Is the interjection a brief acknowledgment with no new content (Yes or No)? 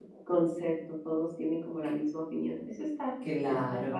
No